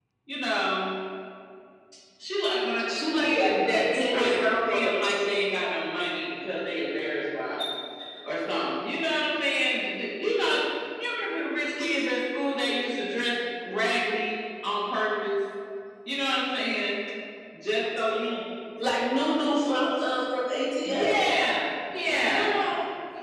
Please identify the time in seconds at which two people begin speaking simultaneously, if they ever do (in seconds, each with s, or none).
2.9 s